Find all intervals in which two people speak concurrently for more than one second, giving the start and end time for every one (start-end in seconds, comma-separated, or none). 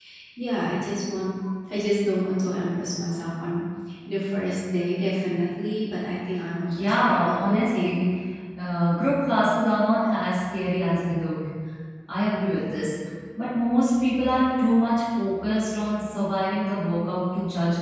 6.7-8.0